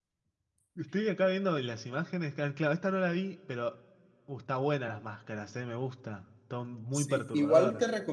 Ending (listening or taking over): taking over